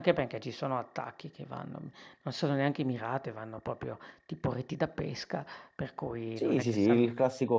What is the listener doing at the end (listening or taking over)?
taking over